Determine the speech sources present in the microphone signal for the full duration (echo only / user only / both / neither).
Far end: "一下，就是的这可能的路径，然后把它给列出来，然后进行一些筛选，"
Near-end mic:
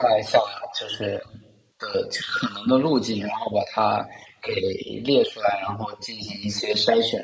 echo only